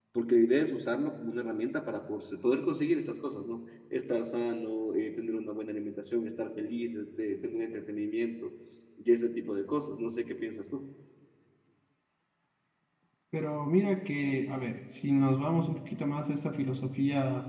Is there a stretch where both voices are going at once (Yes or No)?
No